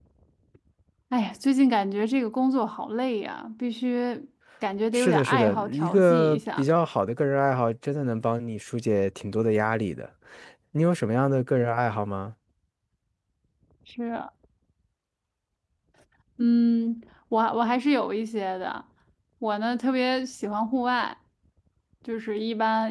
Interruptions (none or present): present